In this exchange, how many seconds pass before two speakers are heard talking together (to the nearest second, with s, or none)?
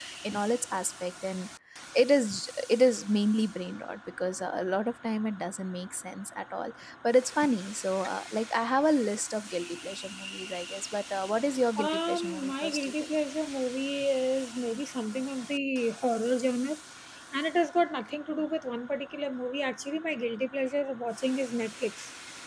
12 s